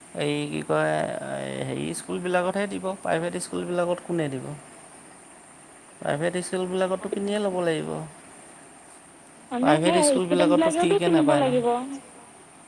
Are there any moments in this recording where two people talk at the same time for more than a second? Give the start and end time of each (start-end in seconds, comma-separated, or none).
9.6-11.6